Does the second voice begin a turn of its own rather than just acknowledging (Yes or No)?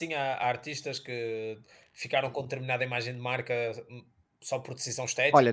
Yes